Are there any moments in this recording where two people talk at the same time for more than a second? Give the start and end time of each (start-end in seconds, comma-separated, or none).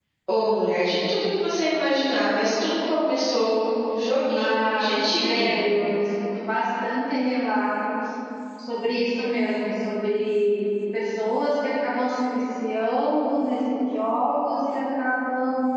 4.3-5.6